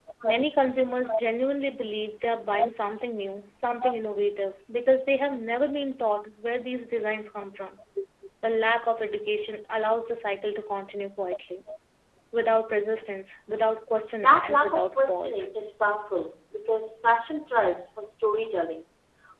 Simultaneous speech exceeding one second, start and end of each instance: 14.2-15.4

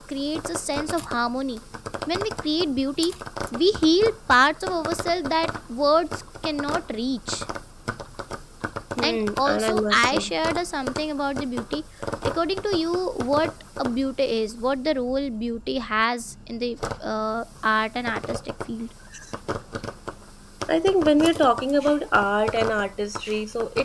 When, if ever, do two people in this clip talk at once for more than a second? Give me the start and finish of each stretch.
9.1-10.3

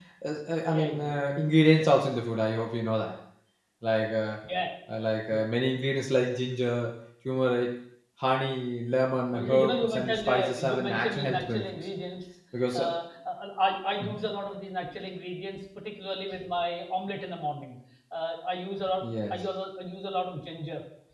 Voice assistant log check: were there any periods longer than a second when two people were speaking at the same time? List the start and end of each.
9.3-11.8

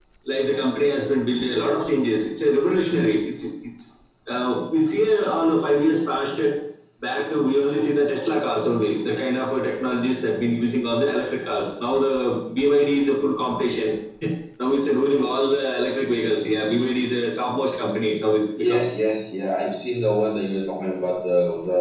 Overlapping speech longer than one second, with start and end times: none

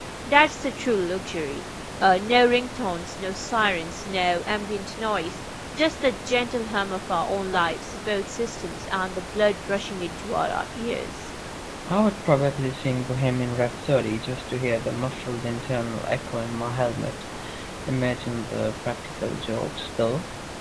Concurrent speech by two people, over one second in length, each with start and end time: none

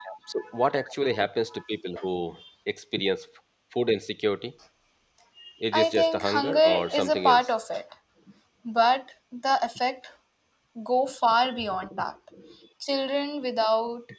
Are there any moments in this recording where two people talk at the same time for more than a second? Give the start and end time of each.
5.7-7.5

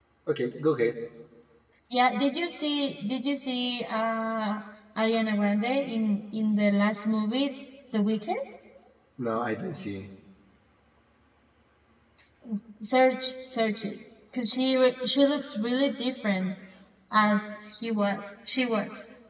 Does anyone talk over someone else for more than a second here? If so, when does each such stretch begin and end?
none

